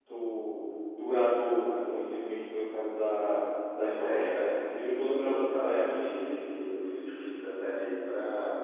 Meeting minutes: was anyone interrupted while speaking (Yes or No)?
Yes